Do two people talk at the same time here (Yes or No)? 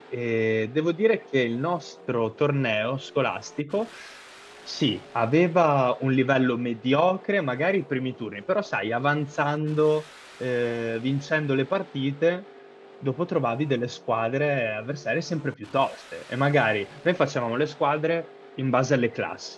No